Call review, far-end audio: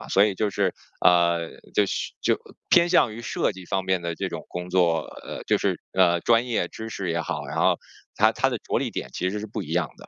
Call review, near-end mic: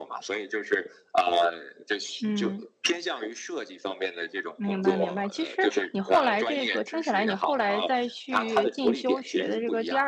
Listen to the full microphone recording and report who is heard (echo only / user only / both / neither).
both